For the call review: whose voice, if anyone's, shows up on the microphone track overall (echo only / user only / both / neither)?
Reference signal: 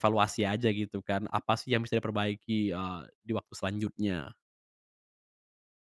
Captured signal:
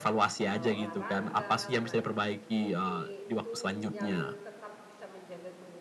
both